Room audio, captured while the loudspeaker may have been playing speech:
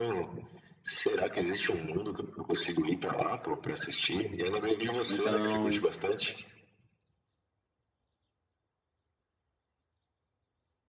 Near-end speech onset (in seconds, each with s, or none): 5.0 s